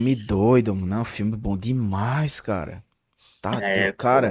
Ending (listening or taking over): listening